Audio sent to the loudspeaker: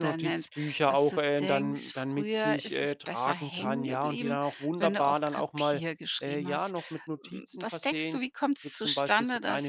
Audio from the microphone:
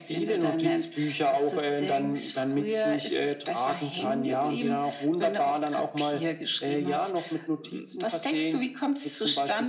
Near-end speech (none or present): none